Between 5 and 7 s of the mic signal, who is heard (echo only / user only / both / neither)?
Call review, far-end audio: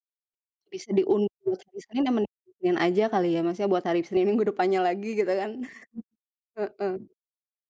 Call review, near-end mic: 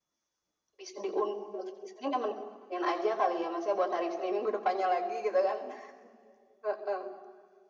echo only